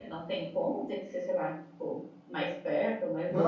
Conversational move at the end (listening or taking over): taking over